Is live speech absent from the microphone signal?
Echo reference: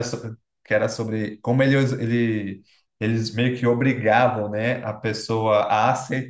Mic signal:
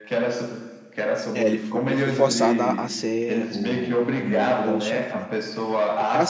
No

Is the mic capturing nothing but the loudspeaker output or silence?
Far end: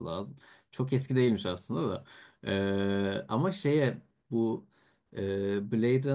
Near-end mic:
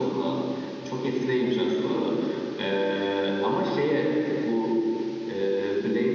Yes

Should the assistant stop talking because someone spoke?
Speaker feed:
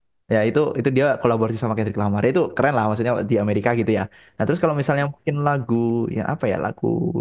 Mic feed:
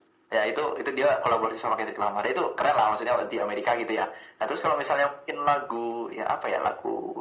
No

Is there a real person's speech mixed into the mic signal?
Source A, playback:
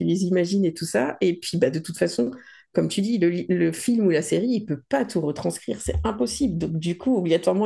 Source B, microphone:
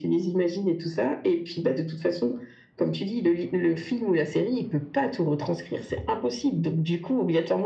No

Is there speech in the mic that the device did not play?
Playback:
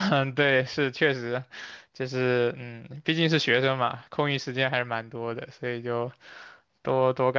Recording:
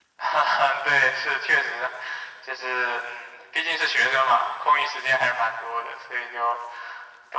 No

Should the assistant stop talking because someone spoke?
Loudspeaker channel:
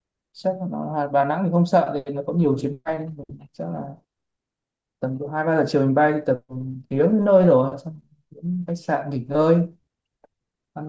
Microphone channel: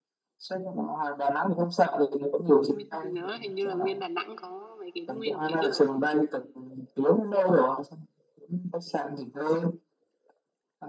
Yes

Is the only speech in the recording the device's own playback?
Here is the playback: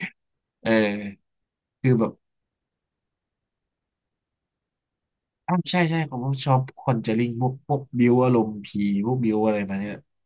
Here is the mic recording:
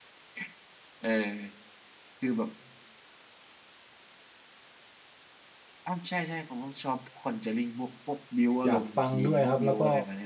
No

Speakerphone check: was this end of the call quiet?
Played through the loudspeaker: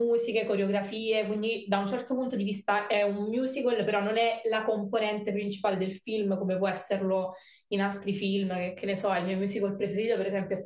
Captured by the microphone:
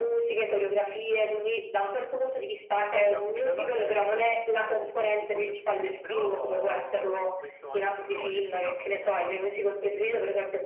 No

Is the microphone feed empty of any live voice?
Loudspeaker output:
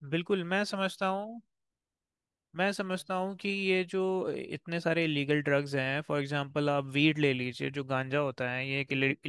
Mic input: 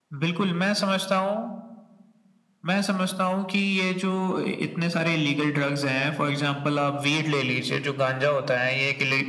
Yes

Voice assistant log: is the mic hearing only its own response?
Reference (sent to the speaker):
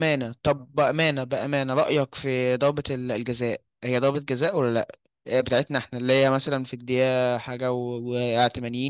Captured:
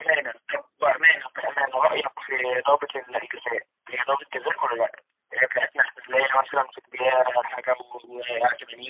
Yes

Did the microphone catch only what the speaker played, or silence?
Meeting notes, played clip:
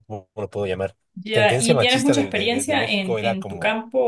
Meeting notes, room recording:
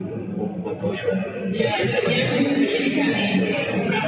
No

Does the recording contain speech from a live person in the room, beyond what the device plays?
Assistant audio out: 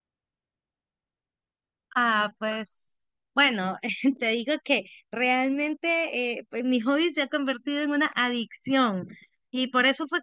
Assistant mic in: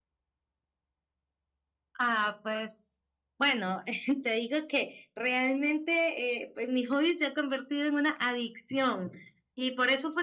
No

